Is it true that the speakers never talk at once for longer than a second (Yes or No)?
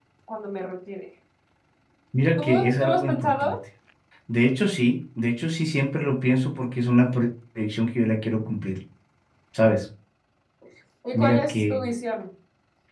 No